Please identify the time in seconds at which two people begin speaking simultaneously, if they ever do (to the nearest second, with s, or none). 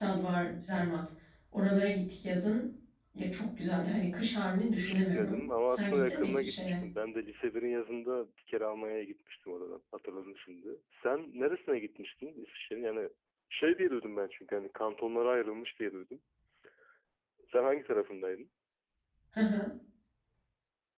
5 s